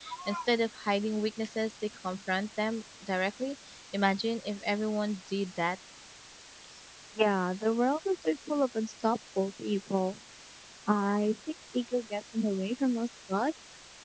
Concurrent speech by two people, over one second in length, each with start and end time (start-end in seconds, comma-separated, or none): none